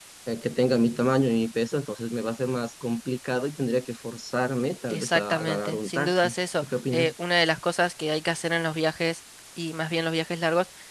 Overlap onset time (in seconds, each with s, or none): 4.9 s